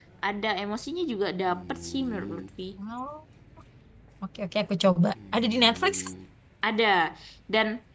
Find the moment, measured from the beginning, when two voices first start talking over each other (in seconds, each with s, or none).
none